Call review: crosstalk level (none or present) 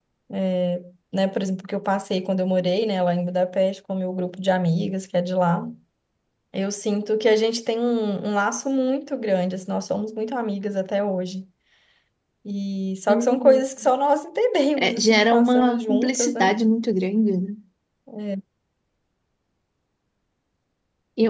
present